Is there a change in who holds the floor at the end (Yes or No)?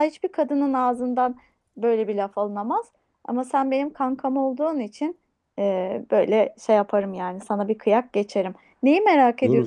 Yes